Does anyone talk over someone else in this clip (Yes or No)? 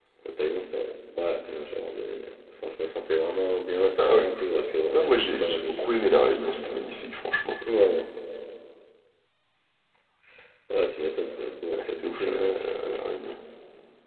Yes